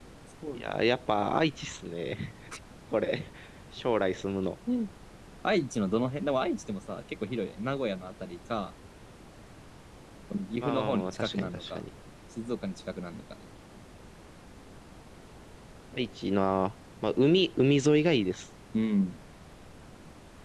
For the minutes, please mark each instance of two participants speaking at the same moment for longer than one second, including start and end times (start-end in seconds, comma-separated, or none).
10.6-11.8